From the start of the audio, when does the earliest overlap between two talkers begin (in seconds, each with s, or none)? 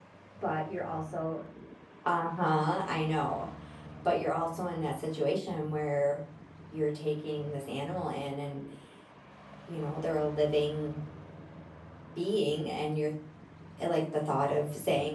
none